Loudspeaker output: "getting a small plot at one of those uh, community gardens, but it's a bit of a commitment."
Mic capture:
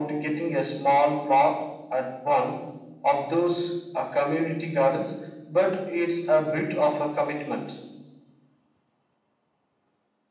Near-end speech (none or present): none